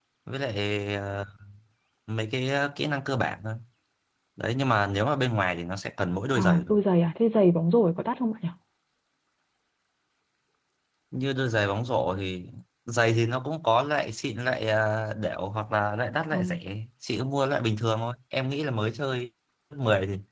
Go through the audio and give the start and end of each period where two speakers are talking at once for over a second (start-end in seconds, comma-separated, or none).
none